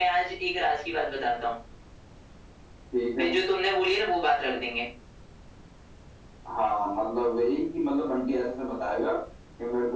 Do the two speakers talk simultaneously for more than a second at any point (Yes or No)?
No